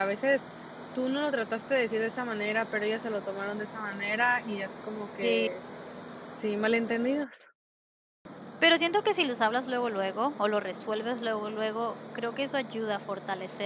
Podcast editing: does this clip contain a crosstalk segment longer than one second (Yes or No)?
No